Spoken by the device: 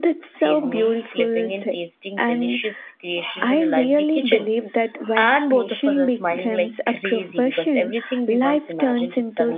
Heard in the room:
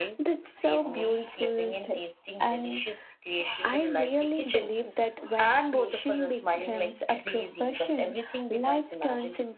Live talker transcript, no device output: none

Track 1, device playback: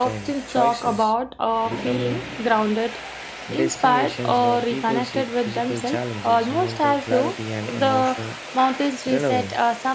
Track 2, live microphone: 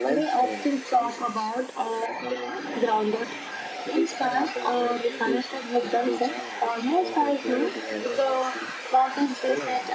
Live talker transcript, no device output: none

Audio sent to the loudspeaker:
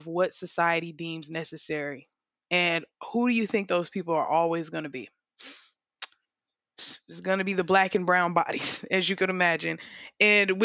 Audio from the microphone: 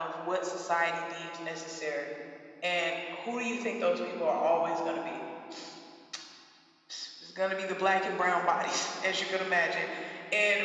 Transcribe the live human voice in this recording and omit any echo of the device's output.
none

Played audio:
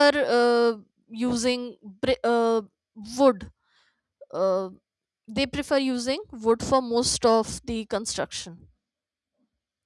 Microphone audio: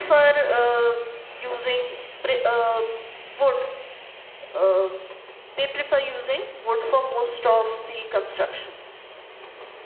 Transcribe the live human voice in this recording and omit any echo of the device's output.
none

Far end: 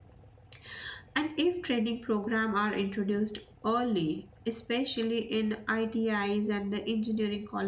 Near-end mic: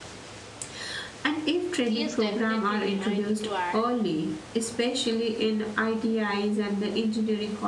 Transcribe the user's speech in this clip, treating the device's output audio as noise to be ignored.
Yes, definitely. I need to add.

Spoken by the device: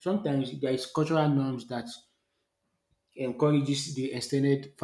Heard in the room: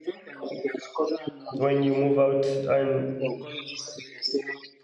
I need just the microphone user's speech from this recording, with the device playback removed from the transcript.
when you move out. And

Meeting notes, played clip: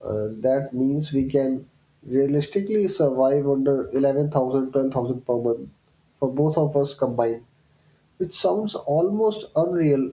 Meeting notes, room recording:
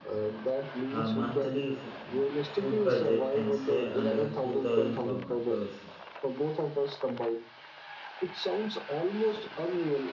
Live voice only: Our monthly f- food budget can stay under 2000 per mo- person.

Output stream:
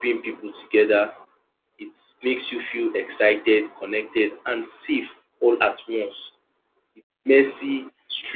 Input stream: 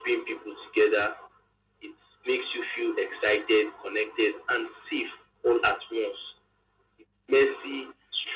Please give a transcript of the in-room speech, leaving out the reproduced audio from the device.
none

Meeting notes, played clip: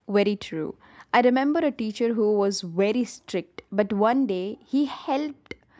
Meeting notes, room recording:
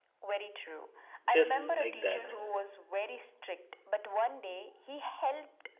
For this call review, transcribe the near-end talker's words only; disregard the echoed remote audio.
just like that.

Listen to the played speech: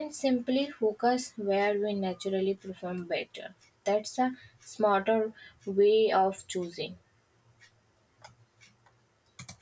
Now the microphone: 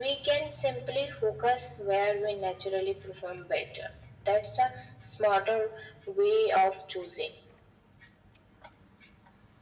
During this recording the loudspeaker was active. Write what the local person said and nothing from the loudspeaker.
none

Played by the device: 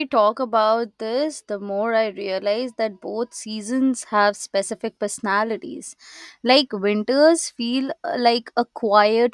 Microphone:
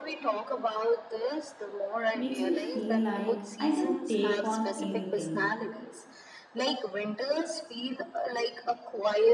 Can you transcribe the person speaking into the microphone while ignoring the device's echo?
makes me feel like I can take on anything.

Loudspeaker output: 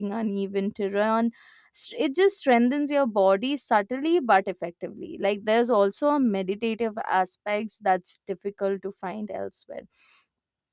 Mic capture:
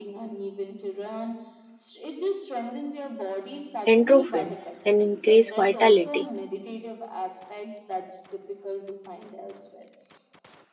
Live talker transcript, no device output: endorphins and increase vitality.

